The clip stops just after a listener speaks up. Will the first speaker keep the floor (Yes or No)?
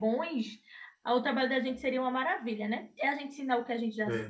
Yes